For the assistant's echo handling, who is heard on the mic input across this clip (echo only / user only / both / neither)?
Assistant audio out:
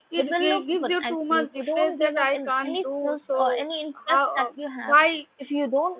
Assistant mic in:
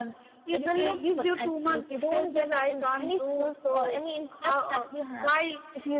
echo only